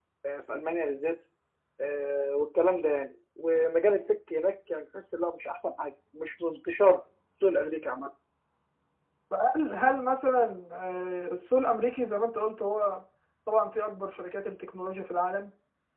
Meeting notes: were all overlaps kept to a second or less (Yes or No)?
Yes